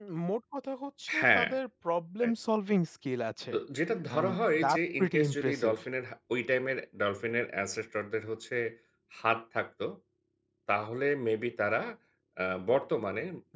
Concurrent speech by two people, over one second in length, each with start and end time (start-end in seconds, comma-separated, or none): 4.1-5.7